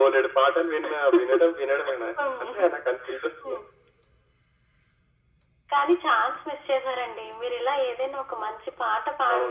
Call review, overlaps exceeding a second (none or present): none